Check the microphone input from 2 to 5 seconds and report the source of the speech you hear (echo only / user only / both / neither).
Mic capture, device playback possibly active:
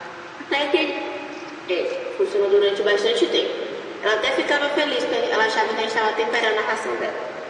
echo only